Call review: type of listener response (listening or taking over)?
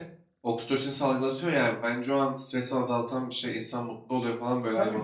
taking over